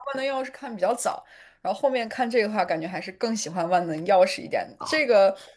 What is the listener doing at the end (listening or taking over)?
listening